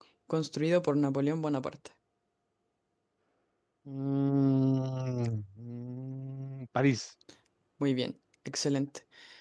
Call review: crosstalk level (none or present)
none